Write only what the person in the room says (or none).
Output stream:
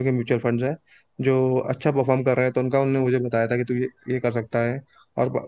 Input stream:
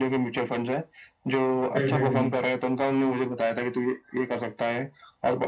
हम्म हम्म हम्म,